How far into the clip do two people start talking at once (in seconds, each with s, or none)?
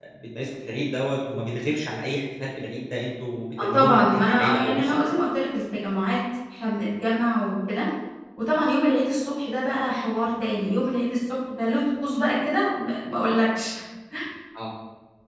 3.6 s